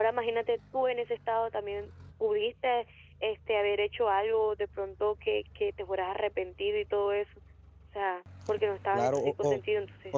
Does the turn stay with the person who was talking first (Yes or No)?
No